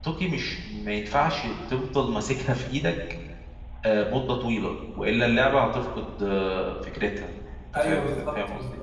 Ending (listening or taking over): taking over